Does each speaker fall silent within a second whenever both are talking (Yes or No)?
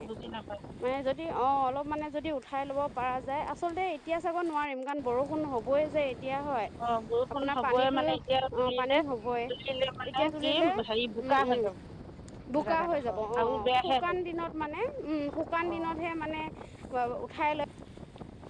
No